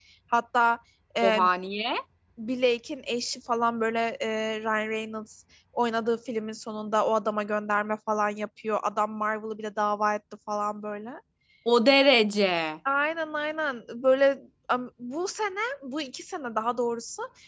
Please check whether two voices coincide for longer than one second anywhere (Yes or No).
No